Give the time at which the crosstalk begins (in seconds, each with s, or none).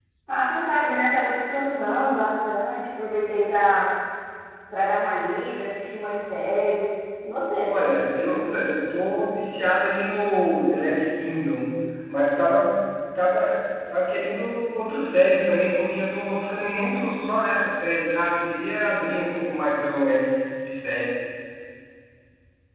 none